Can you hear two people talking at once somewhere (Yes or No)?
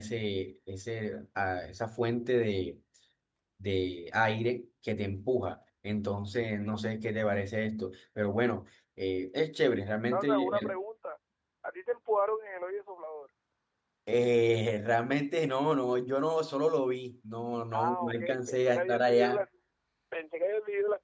Yes